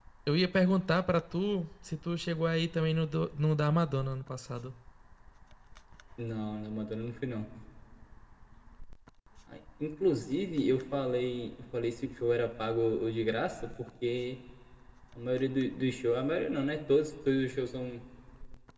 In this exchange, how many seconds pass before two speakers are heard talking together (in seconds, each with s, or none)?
none